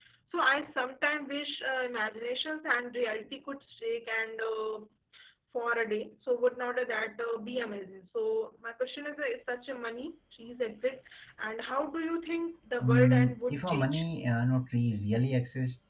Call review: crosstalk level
present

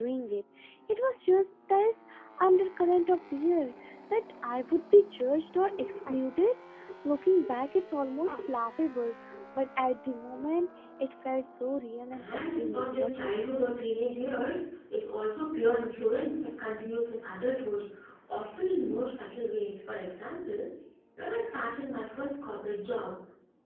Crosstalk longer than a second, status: present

